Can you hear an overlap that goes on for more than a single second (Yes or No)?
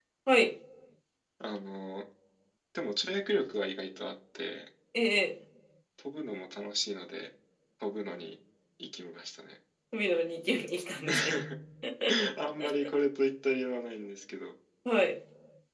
No